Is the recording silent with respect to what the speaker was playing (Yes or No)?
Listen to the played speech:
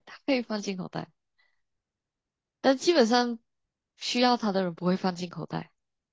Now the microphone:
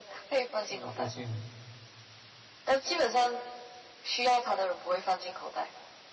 No